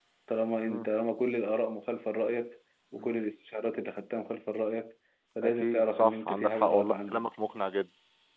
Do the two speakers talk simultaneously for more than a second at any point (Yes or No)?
Yes